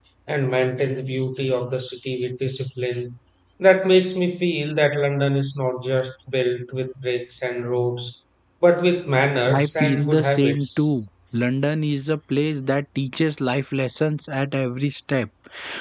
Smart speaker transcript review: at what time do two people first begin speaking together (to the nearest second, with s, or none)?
10 s